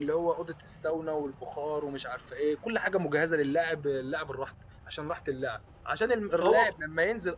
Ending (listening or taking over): listening